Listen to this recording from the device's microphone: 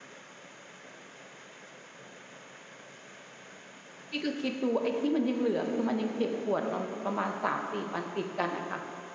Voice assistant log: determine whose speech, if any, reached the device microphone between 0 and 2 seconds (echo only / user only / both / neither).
neither